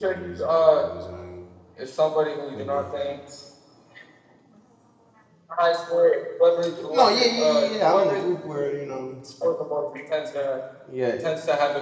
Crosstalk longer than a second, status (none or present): present